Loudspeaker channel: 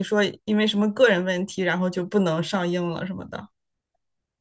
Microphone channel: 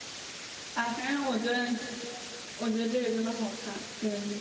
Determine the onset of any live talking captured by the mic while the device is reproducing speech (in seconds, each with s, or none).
0.7 s